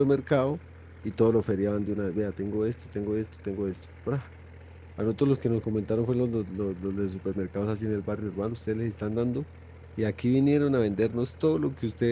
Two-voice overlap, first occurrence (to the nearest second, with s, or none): none